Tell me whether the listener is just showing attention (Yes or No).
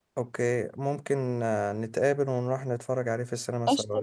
No